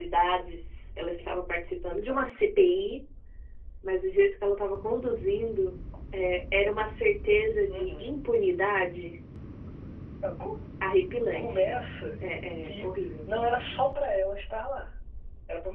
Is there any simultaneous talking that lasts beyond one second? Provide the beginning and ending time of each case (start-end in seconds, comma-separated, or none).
none